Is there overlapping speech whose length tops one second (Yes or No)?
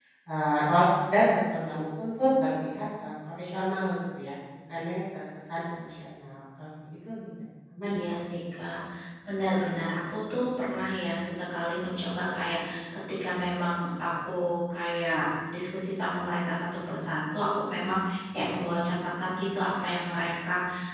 No